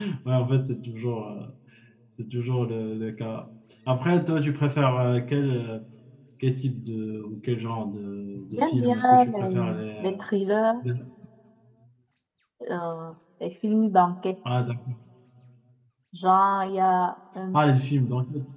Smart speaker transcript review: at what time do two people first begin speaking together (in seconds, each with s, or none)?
8.5 s